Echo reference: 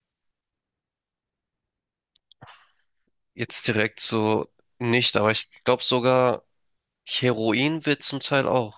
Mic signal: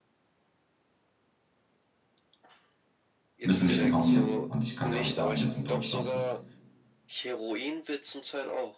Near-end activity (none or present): present